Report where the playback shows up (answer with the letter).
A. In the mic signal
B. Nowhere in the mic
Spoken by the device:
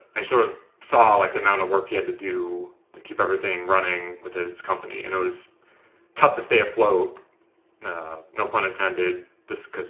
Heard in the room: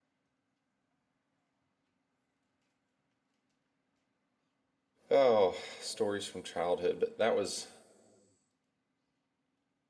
B